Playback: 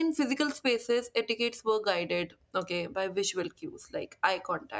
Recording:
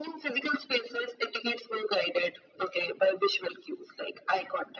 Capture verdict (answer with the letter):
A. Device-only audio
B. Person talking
A